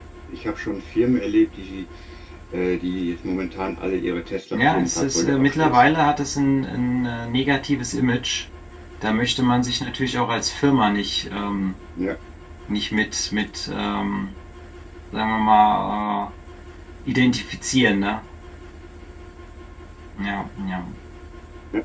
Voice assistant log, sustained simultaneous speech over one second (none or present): present